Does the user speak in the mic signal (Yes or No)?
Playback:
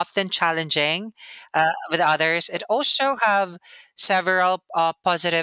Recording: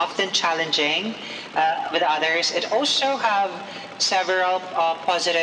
No